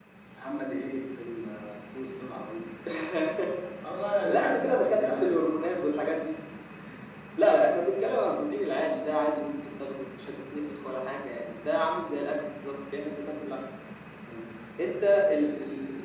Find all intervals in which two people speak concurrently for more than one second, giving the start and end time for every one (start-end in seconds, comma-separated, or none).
4.2-5.4